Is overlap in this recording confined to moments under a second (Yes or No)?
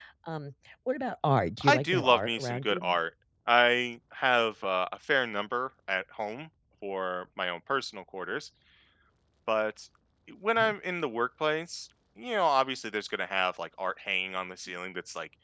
No